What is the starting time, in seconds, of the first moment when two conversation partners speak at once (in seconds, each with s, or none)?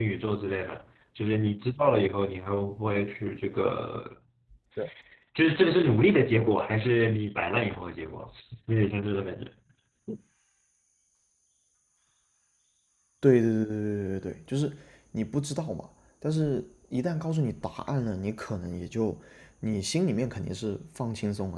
none